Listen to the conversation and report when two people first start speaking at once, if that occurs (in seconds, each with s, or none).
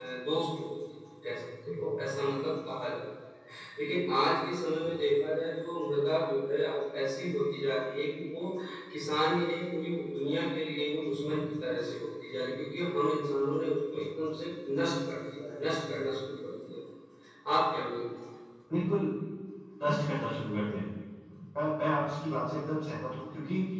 none